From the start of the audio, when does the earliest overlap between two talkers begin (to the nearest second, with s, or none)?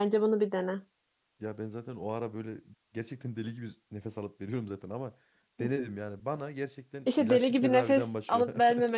7 s